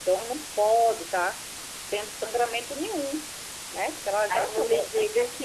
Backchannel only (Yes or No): No